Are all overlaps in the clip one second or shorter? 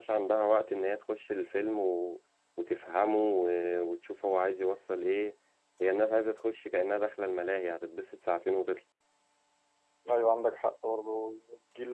Yes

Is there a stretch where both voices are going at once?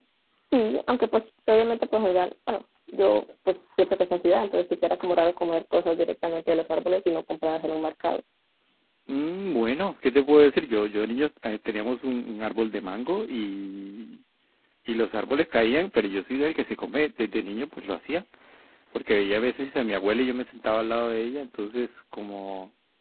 No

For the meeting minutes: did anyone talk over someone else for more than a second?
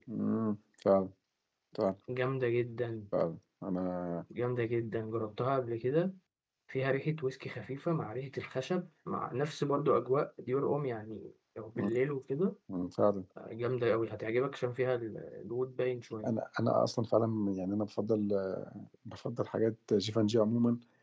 No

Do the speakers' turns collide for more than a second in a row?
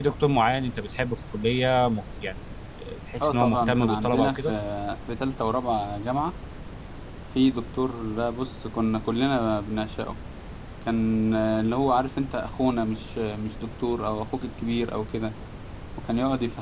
Yes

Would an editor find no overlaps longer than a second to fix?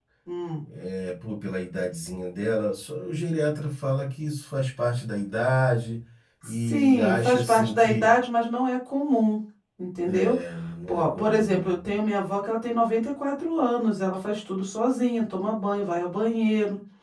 No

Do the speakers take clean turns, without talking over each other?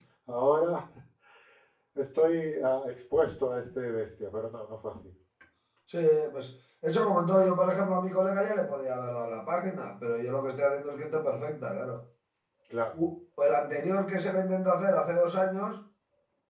Yes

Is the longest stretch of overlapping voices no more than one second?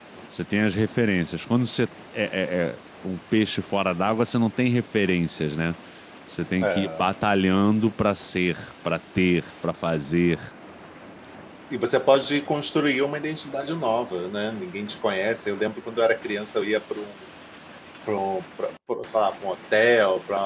Yes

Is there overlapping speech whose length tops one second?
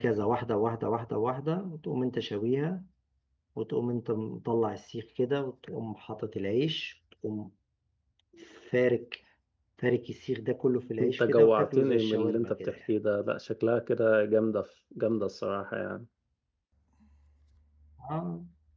Yes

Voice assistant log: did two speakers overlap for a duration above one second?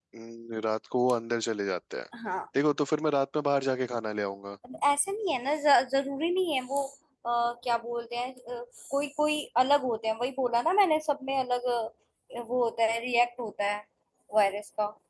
No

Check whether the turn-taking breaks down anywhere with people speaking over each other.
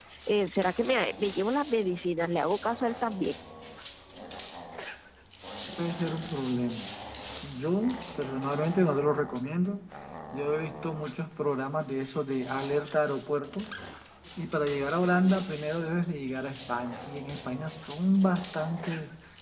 No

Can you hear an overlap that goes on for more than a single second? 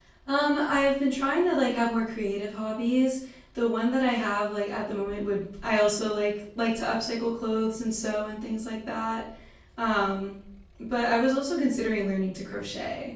No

